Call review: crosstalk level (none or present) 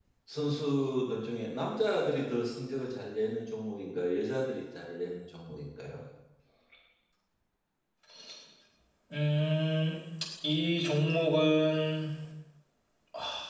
none